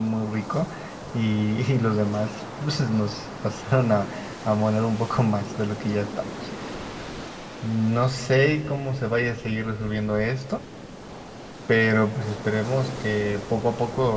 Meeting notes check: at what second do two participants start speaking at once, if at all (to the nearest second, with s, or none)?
none